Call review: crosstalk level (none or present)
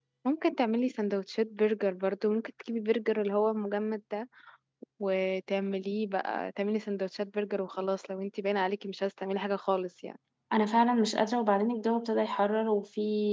none